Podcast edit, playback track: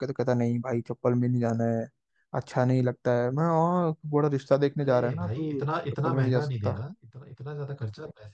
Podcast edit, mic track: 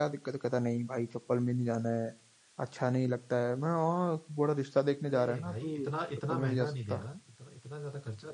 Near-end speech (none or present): none